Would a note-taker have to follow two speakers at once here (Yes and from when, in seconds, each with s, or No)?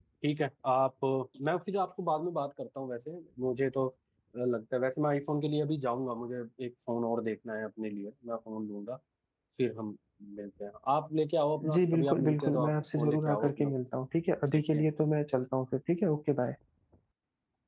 Yes, from 11.8 s